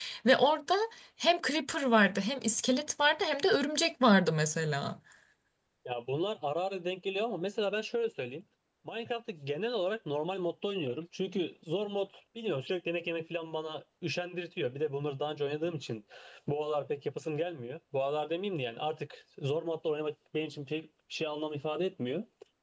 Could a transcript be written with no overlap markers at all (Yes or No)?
Yes